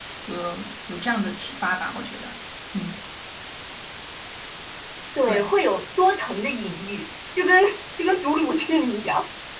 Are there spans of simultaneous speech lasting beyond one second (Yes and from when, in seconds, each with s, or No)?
No